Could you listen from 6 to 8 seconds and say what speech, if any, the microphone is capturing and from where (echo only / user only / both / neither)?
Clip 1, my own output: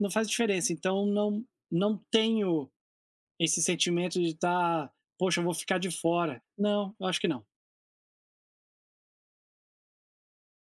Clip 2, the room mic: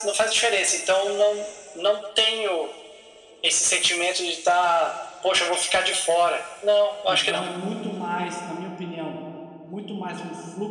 both